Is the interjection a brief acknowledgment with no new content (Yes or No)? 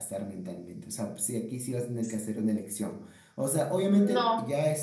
Yes